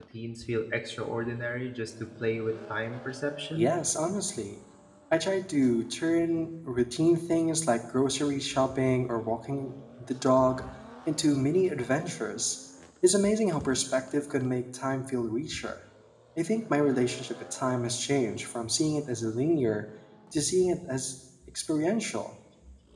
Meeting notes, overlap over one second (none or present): none